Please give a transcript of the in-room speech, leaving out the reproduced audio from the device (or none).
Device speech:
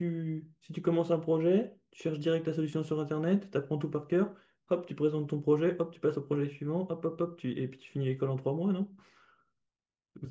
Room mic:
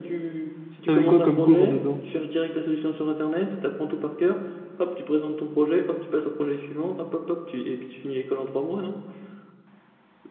T'avais quoi comme cours dedans?